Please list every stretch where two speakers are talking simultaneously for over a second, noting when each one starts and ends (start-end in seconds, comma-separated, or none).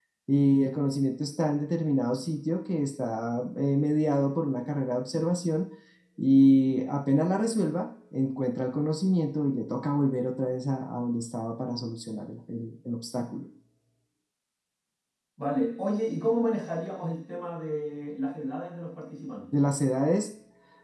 none